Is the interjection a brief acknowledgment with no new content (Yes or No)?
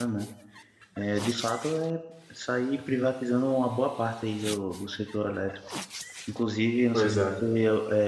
Yes